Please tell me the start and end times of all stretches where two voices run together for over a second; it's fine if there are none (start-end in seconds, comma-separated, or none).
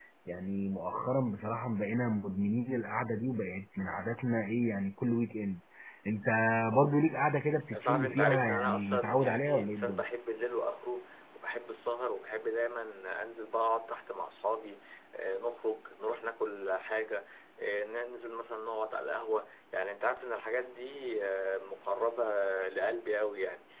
7.7-10.0